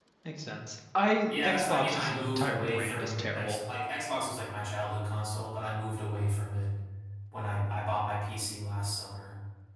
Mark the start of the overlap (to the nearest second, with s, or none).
1 s